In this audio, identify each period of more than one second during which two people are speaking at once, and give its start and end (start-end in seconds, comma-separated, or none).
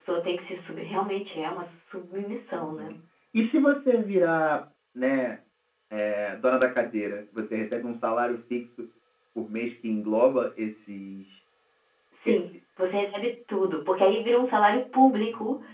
none